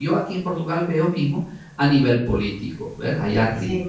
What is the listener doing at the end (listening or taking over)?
listening